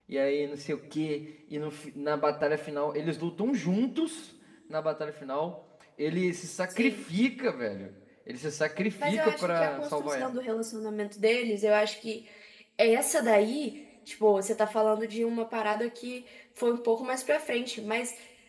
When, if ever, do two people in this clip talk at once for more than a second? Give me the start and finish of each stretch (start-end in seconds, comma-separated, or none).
9.0-10.3